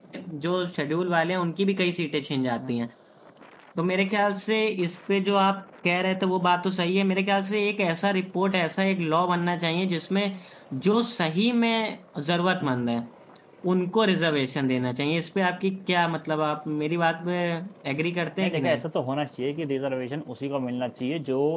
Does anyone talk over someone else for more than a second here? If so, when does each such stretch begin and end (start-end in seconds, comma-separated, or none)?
none